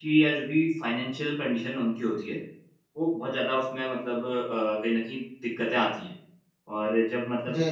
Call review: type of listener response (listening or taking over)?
listening